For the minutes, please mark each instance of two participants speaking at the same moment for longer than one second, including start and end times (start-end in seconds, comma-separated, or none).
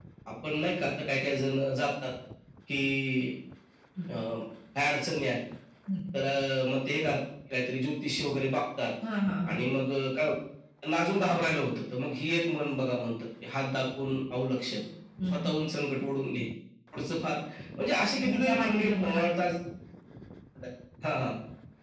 18.2-19.5